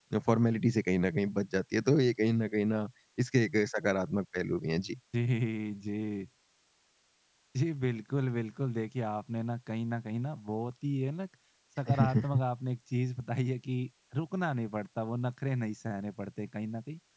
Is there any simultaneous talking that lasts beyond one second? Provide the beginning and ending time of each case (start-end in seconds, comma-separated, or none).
none